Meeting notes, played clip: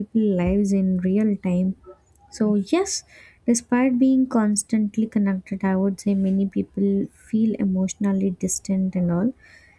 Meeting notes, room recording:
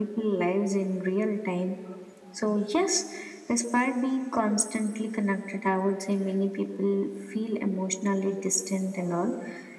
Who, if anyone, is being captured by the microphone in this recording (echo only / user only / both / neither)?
echo only